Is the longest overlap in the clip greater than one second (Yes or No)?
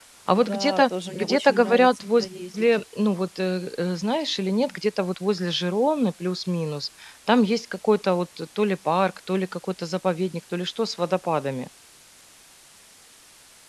Yes